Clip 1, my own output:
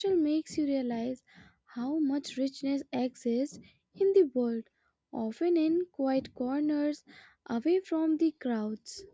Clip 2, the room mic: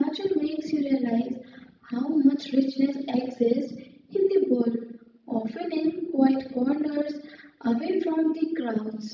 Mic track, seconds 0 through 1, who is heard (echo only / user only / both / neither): echo only